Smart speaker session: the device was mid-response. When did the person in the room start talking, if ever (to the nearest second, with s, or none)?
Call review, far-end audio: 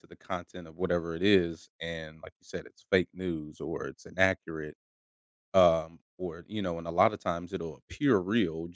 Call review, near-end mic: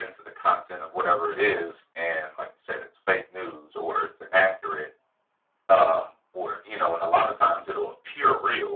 none